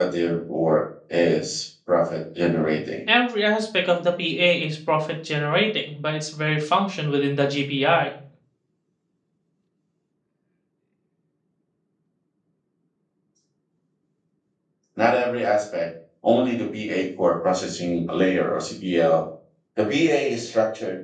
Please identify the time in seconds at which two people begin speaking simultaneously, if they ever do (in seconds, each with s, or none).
none